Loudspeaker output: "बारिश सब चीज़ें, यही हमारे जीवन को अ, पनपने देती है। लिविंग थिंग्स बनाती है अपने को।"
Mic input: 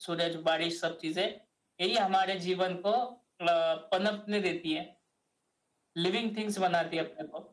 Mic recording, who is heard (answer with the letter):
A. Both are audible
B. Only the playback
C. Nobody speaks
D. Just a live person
B